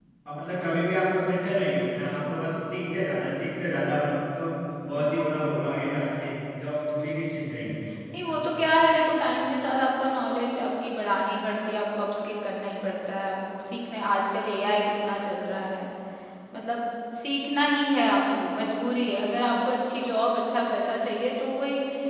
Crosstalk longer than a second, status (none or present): none